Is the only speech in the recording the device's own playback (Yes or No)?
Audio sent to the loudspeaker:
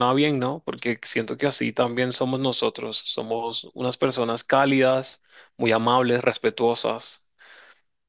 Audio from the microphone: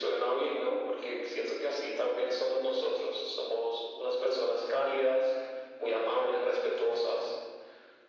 Yes